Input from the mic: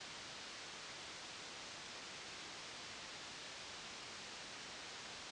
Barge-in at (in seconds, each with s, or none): none